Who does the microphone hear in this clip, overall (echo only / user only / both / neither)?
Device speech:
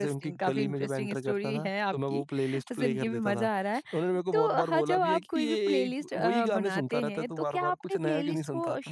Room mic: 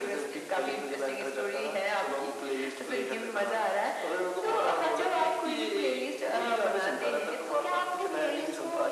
echo only